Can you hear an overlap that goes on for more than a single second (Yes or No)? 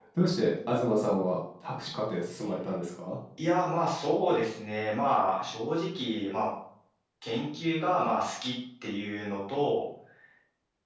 No